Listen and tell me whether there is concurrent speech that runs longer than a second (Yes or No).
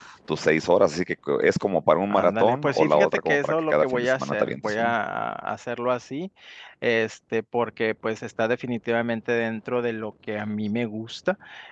Yes